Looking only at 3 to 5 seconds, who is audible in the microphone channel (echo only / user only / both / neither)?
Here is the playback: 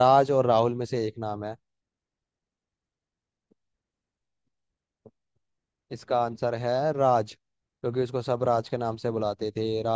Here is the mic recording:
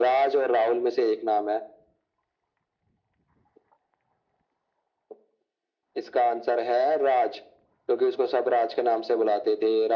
neither